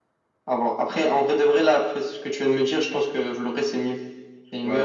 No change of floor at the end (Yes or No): No